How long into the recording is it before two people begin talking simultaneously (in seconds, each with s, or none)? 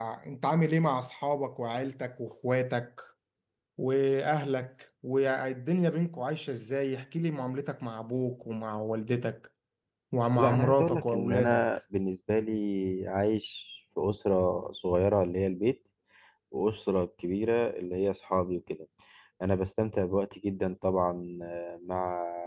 10.4 s